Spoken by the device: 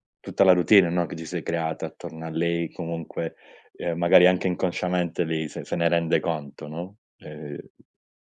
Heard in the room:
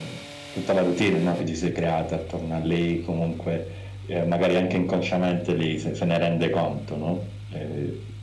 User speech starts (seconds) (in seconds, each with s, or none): none